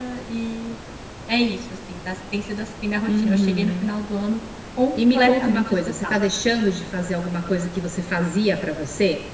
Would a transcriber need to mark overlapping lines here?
Yes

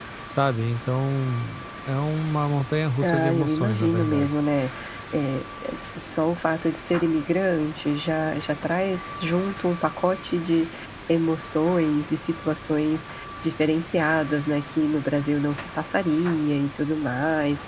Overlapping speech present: Yes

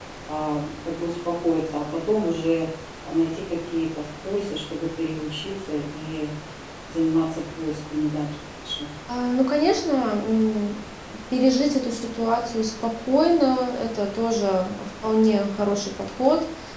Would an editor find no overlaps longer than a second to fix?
Yes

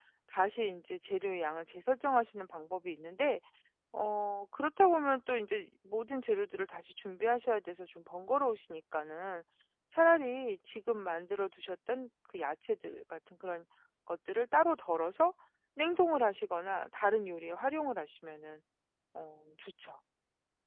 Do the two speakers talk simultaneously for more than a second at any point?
No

